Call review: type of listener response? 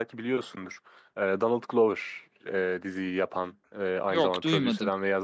listening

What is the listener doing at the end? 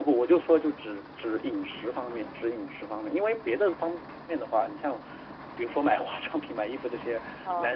listening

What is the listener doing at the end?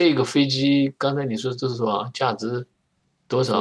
taking over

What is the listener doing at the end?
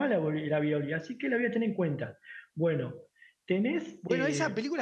taking over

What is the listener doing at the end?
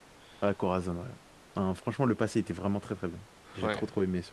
taking over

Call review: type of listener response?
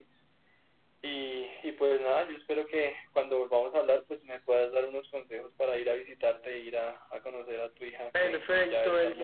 taking over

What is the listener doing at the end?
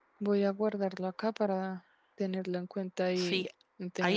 taking over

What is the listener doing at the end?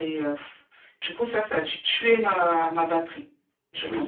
taking over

